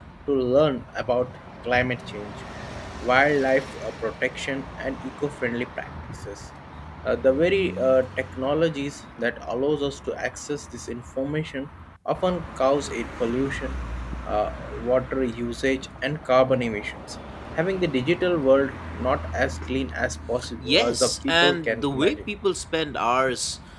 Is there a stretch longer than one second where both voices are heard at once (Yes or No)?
Yes